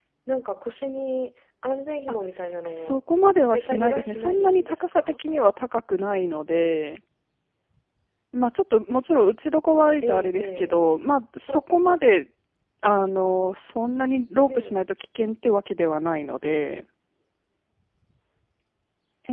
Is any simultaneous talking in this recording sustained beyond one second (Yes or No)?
Yes